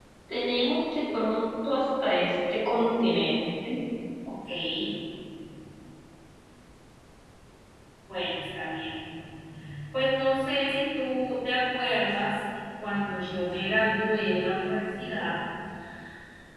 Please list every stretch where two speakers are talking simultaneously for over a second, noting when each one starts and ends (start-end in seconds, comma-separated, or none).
none